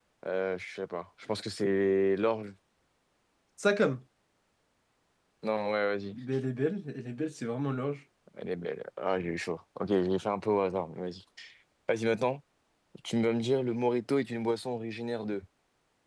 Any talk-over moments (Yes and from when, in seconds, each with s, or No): No